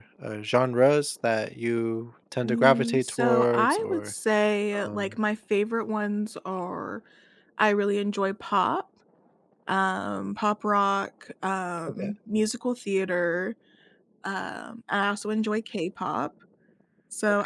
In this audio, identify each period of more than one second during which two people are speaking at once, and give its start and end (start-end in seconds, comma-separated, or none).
2.4-4.1